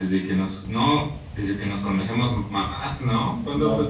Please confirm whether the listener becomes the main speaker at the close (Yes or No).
Yes